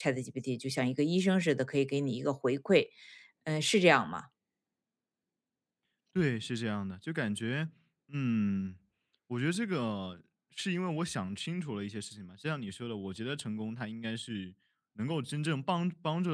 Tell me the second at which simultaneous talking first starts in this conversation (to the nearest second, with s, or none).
none